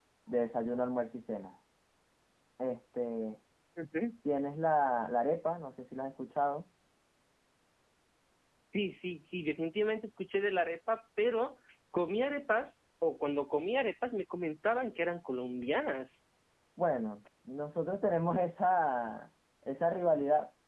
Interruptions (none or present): none